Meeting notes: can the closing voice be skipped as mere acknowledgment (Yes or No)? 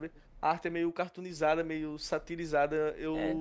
Yes